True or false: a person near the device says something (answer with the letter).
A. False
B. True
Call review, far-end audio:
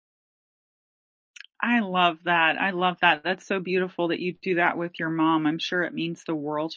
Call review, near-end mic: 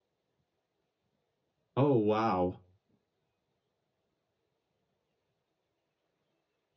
B